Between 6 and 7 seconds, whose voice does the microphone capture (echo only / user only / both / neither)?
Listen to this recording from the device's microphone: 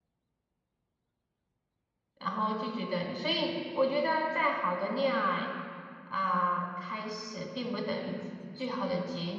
user only